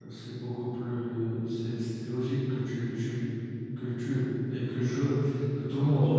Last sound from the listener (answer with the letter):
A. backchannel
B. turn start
A